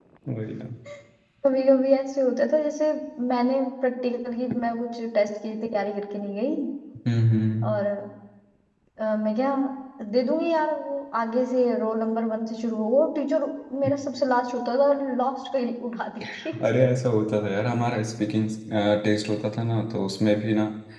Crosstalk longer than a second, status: none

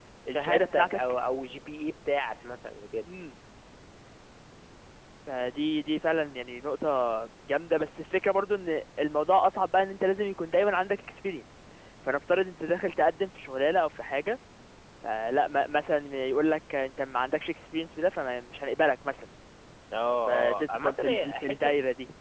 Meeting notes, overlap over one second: present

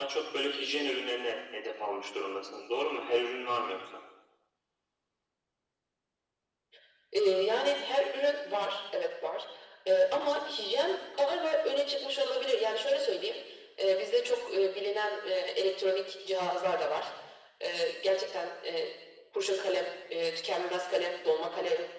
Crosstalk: none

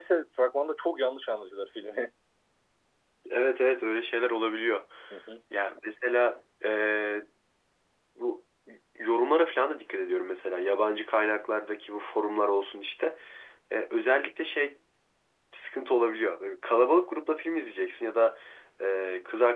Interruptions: none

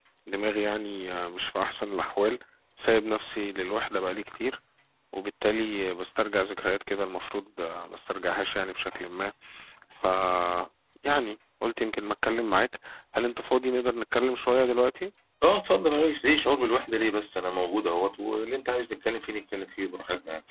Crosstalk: none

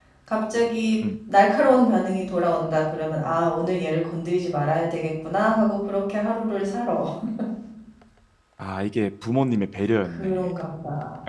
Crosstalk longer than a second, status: none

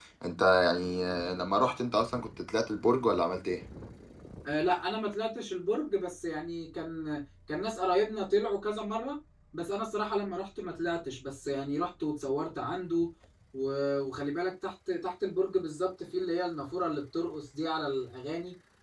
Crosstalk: none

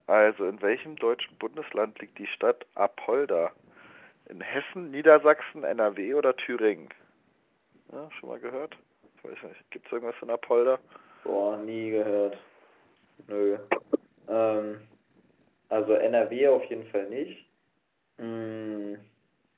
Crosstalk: none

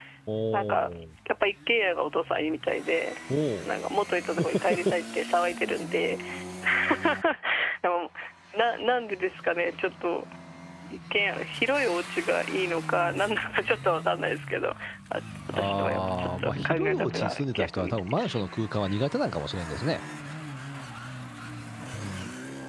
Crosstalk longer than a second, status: present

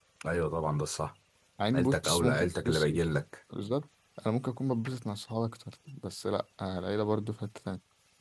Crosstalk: present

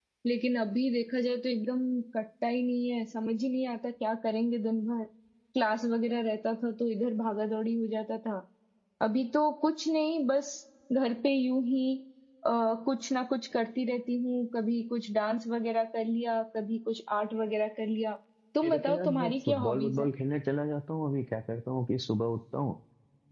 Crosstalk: present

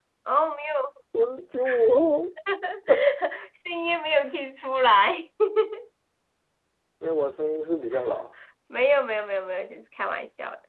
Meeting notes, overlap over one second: none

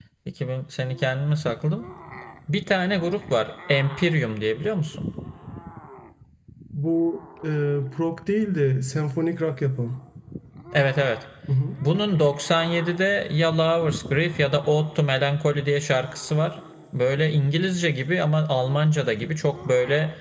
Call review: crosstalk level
none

